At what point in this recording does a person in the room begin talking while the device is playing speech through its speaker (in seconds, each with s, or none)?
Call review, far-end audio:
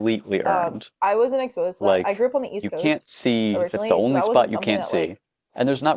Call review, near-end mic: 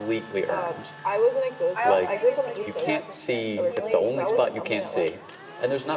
1.8 s